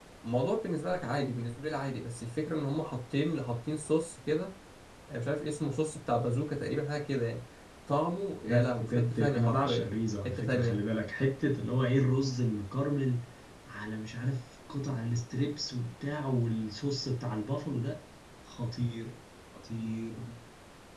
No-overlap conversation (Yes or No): No